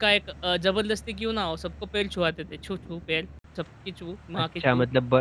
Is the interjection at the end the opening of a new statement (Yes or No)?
Yes